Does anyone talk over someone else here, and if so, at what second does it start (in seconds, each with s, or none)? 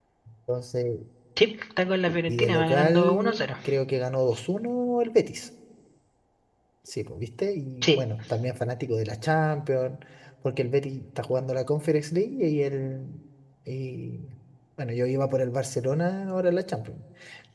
2.1 s